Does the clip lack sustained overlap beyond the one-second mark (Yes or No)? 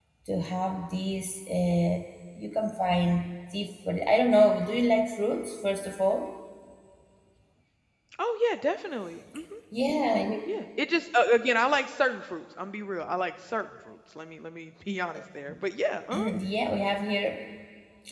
Yes